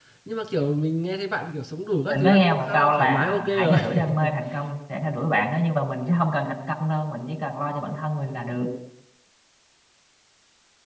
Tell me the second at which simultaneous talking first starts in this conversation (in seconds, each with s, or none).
2.1 s